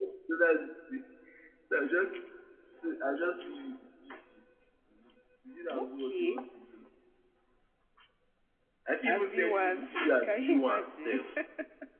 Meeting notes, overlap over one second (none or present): present